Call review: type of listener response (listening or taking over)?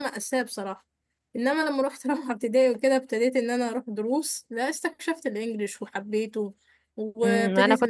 taking over